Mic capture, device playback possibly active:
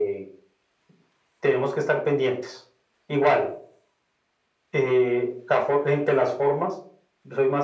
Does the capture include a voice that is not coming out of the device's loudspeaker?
No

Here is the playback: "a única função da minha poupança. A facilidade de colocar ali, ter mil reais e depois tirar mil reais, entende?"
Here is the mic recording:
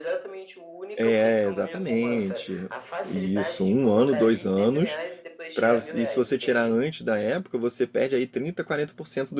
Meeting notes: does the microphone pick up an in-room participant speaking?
Yes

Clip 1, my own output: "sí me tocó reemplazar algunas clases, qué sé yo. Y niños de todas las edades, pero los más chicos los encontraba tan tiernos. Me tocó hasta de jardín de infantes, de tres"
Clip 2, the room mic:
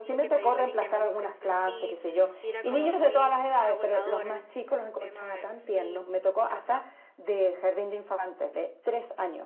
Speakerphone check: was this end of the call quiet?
No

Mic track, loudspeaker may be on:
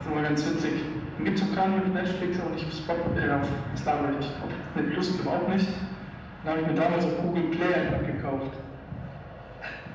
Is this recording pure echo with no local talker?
Yes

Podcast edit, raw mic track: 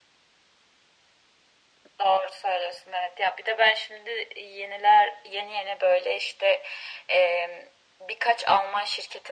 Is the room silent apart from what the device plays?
Yes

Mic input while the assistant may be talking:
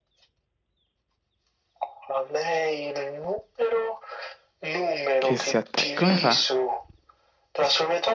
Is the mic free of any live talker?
No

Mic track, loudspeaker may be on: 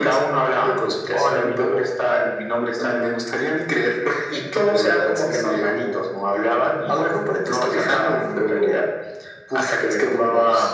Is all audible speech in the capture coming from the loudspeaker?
Yes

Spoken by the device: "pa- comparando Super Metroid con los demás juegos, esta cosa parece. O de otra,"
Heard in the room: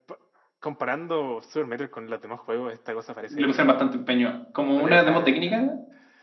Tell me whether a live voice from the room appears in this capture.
Yes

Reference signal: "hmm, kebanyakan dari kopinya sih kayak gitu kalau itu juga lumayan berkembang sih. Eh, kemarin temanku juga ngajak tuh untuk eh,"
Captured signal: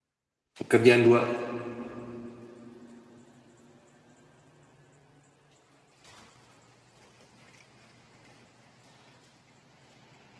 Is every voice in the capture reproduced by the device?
No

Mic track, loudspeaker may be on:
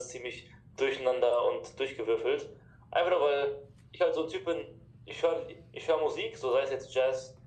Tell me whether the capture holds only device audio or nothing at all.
Yes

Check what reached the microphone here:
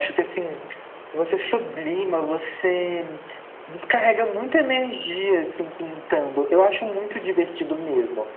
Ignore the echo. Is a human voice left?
No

